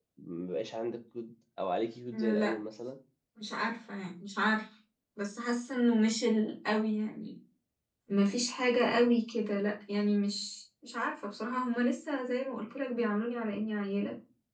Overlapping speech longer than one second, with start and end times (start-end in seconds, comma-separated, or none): none